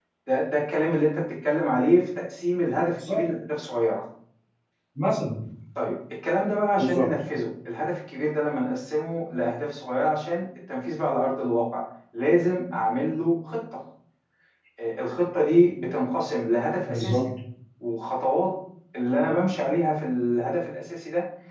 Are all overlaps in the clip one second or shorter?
Yes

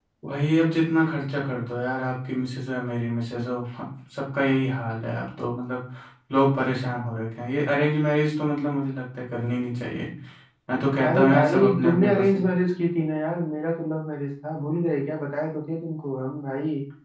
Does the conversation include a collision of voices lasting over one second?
Yes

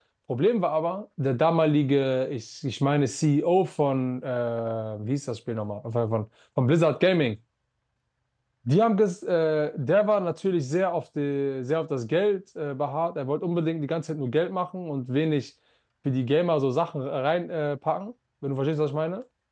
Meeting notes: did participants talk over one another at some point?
No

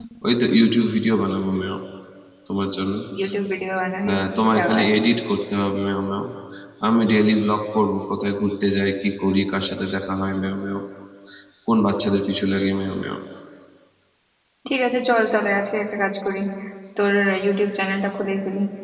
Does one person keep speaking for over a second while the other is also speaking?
No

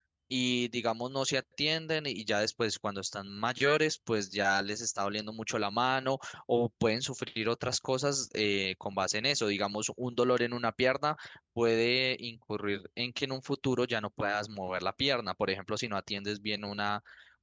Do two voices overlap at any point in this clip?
No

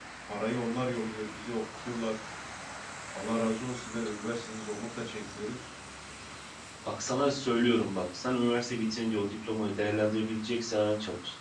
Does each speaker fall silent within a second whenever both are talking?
Yes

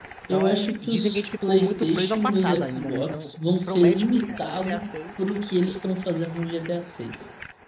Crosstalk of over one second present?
Yes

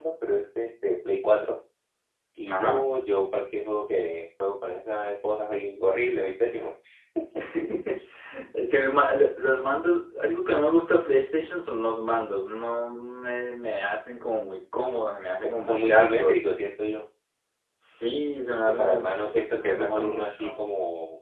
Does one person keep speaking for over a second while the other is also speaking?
Yes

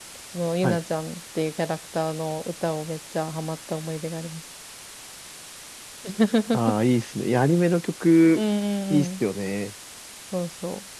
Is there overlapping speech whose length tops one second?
No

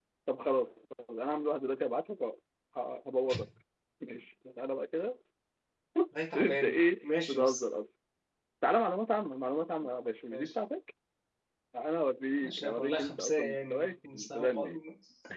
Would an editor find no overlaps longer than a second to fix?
No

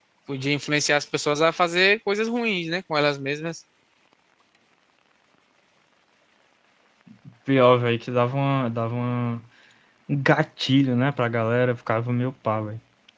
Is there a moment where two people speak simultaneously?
No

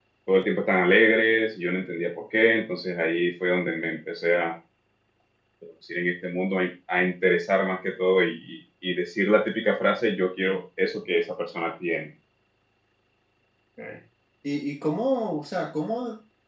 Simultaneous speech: No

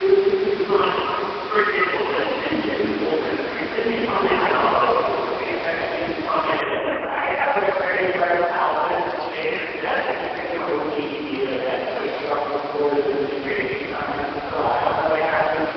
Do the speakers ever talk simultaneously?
Yes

